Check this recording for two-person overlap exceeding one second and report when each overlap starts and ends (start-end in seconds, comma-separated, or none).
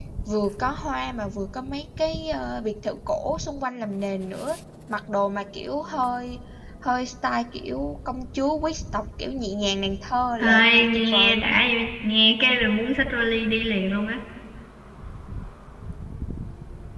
10.4-11.6